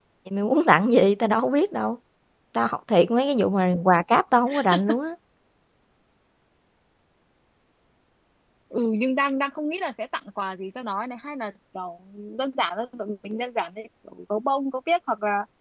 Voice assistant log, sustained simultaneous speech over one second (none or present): none